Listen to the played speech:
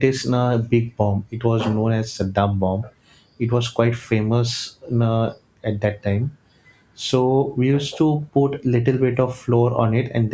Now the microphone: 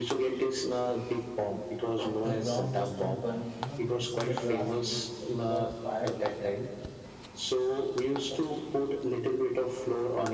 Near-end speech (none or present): present